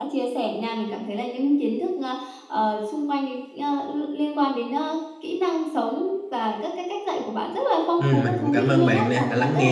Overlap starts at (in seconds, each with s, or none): 8.0 s